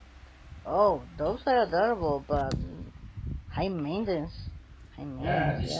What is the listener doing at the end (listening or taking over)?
taking over